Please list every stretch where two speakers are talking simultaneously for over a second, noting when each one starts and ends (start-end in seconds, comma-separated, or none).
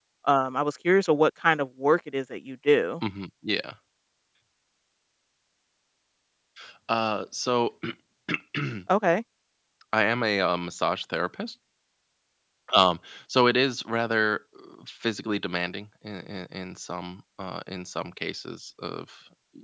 none